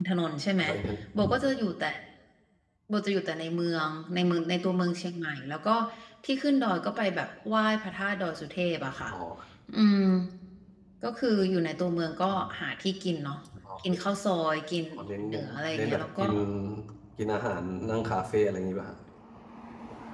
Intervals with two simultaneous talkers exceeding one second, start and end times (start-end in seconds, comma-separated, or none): 15.0-16.2